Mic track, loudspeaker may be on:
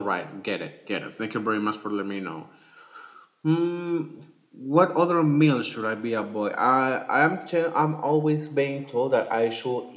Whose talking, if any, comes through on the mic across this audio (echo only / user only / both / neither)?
echo only